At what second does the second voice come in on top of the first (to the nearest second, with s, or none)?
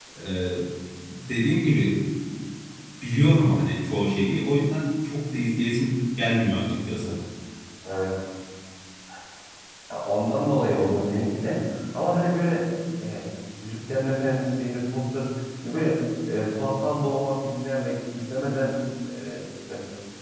none